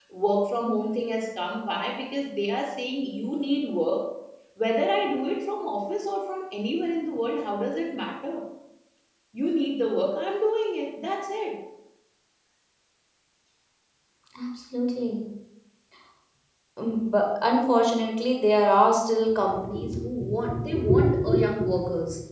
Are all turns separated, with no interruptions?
Yes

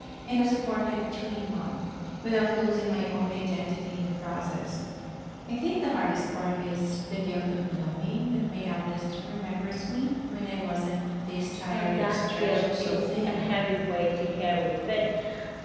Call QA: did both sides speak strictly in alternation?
No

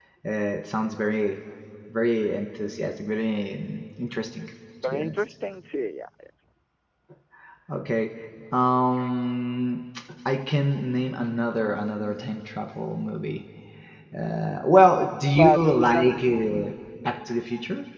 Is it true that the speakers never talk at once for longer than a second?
No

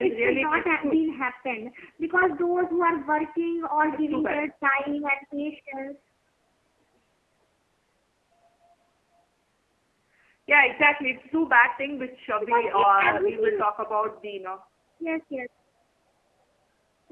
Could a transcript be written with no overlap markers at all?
No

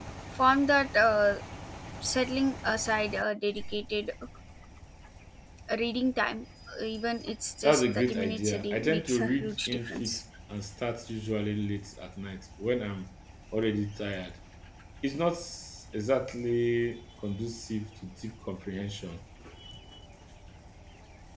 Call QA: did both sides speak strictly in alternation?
No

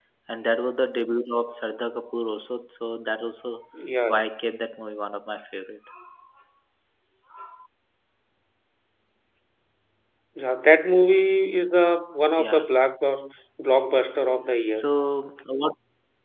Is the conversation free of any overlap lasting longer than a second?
Yes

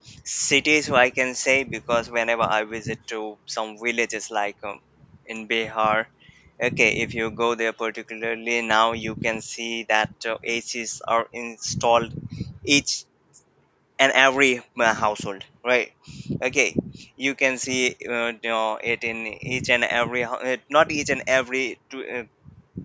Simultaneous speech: No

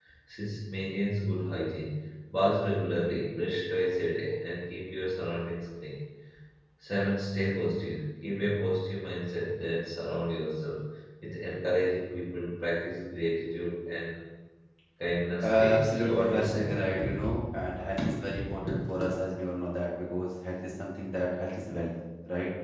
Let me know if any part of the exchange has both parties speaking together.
Yes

